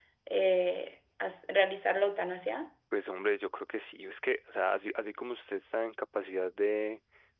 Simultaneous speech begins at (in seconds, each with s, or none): none